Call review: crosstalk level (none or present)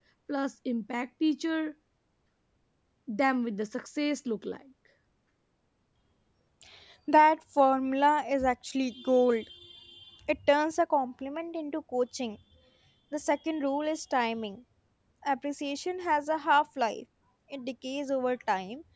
none